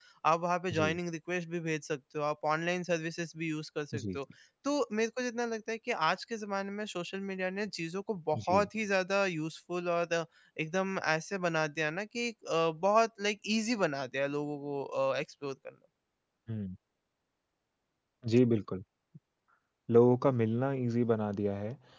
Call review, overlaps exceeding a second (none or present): none